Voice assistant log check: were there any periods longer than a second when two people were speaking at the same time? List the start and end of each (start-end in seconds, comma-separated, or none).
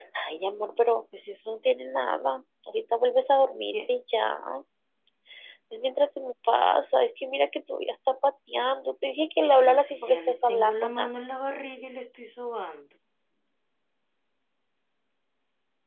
9.5-11.1